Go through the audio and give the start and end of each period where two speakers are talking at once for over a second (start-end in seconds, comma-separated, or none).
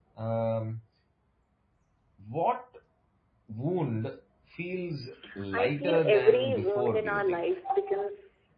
5.5-7.4